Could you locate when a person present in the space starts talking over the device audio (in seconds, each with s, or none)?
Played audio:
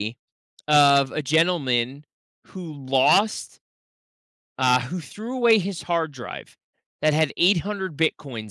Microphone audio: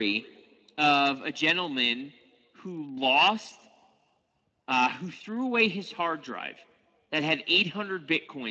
none